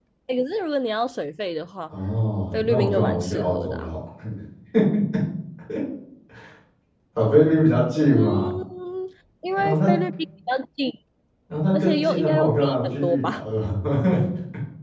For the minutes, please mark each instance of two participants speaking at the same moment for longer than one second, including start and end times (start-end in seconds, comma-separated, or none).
2.5-3.9, 11.8-13.4